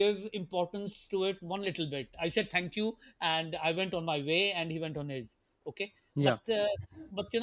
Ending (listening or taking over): listening